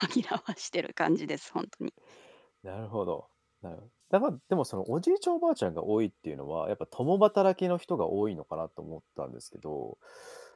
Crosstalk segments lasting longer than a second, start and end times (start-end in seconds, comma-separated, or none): none